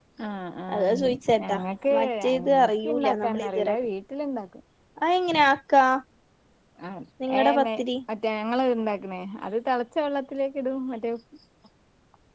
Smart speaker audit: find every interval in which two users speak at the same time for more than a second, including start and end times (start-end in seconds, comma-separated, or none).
2.0-3.8